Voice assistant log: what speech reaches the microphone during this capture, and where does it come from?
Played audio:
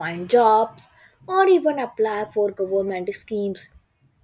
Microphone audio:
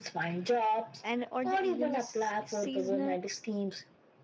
both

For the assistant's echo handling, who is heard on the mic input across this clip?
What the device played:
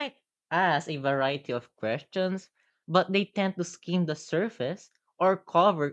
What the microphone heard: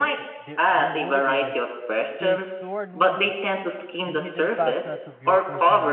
both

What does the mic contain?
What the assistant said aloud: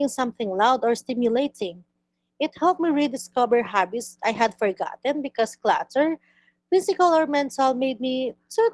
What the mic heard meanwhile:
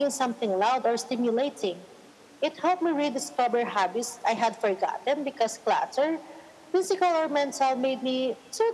echo only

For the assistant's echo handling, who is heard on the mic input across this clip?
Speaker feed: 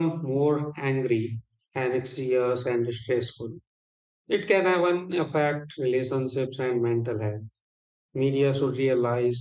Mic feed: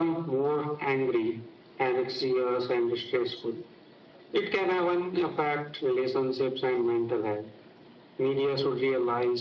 echo only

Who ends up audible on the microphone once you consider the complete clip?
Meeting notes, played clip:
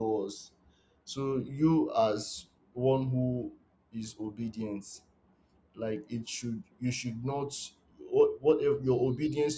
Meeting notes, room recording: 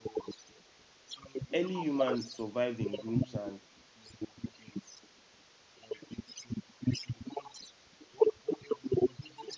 both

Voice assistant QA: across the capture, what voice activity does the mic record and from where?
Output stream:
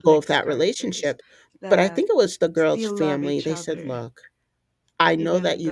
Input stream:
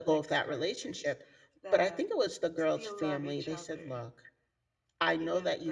echo only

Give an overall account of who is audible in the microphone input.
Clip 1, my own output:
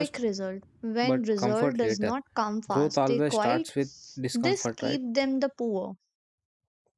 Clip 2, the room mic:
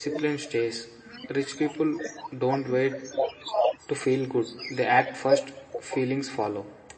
both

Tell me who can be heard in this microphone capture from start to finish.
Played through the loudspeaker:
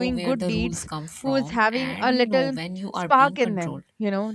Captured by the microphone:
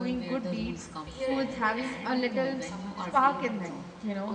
both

